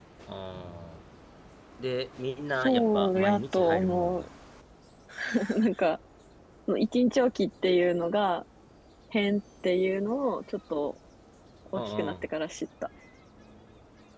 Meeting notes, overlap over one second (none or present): present